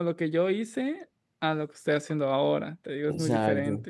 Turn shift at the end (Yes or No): Yes